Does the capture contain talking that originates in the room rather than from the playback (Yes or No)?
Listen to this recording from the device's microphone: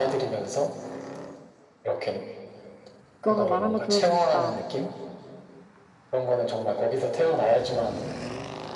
Yes